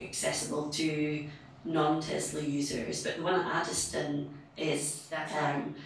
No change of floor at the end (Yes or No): Yes